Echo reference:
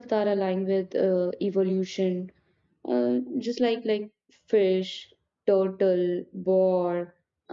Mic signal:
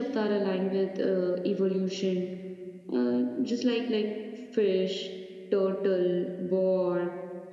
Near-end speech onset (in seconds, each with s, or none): none